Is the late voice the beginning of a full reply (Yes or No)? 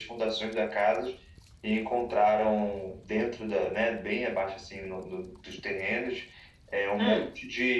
No